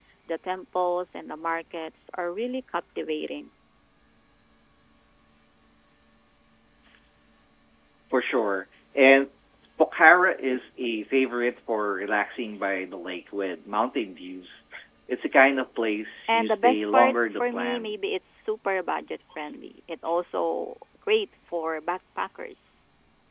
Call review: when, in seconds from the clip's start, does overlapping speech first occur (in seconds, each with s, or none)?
16.2 s